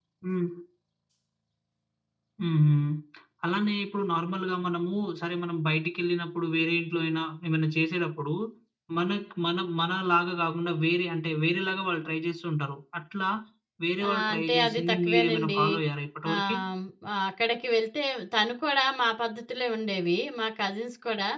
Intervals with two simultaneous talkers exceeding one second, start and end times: 14.1-15.6

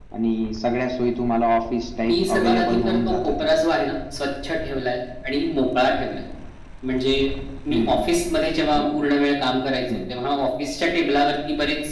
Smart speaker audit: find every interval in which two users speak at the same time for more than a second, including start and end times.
2.1-3.6

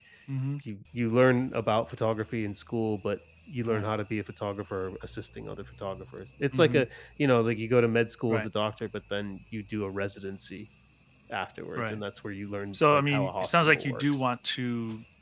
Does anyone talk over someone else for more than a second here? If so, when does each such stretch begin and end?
12.7-14.2

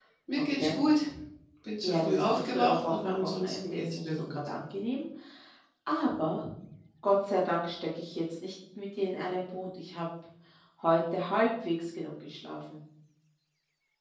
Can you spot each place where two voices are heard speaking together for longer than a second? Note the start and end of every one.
1.8-4.5

